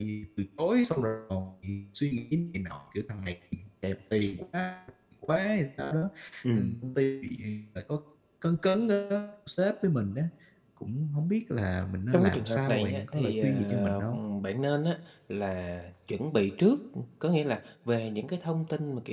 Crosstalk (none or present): present